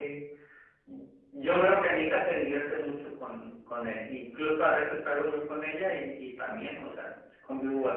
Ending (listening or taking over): taking over